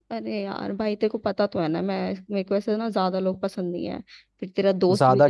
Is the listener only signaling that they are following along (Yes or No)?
Yes